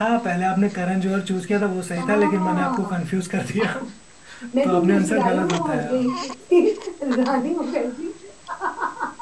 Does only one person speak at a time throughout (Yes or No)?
No